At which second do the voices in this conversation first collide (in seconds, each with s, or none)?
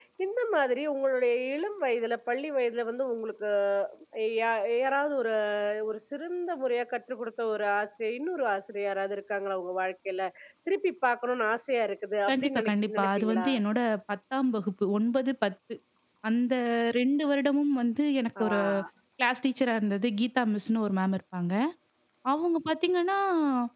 12.3 s